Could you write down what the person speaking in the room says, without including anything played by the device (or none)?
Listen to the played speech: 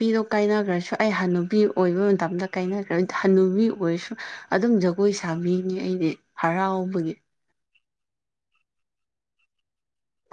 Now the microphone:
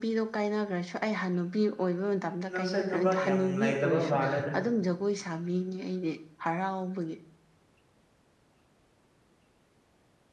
ꯅꯪꯁꯦ ꯊꯕꯛ ꯌꯥꯝ ꯂꯩꯇꯕ ꯃꯥꯜꯂꯦꯗ